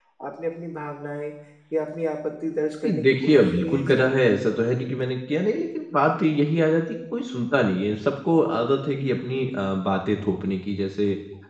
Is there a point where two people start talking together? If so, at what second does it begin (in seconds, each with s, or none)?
2.8 s